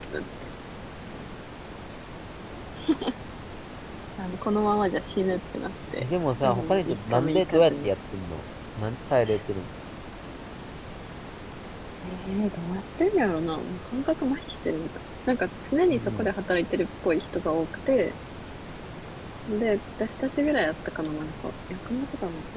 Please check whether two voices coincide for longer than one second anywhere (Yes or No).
Yes